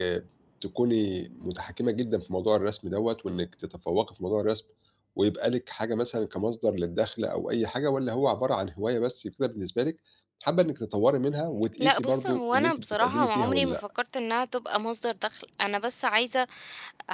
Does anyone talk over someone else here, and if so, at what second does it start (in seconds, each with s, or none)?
11.8 s